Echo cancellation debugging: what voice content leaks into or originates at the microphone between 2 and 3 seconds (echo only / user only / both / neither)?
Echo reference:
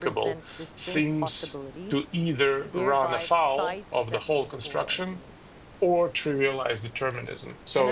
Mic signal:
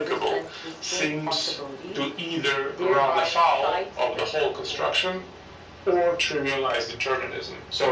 echo only